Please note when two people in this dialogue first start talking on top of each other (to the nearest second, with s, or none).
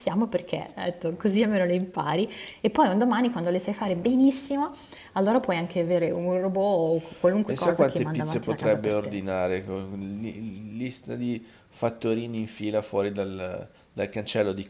7 s